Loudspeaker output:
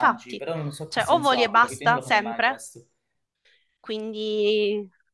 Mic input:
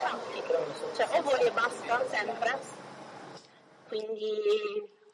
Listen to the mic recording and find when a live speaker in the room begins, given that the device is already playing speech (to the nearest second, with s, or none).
none